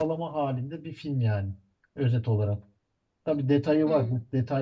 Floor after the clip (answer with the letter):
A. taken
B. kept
B